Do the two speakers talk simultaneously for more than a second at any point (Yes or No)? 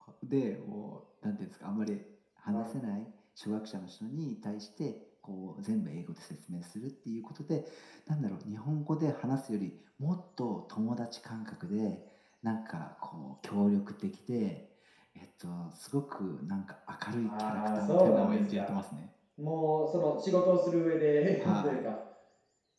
Yes